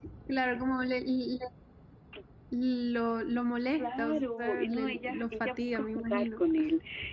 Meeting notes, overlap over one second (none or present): present